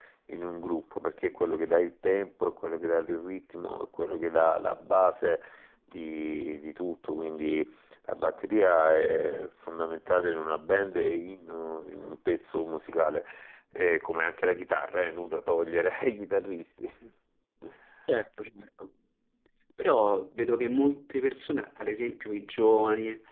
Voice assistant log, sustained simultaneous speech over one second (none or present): none